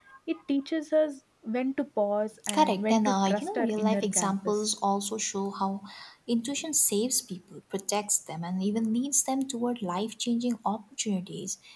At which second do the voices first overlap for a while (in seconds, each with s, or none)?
2.4 s